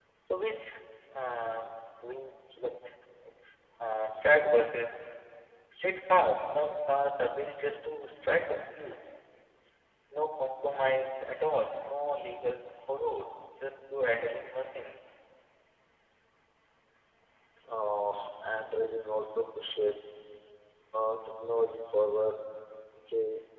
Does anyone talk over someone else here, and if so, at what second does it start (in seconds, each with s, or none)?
none